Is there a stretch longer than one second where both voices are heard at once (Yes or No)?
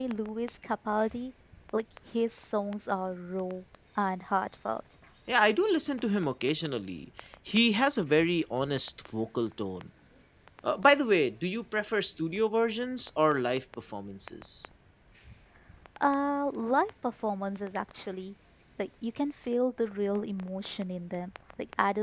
No